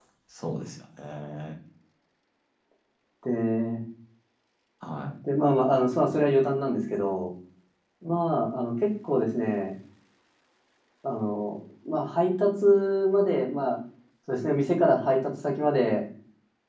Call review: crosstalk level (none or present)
none